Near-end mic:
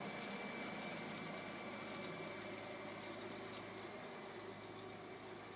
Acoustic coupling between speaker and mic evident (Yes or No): No